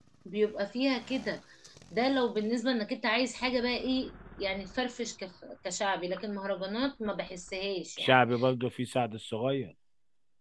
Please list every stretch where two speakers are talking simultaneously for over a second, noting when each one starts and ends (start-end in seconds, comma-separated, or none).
none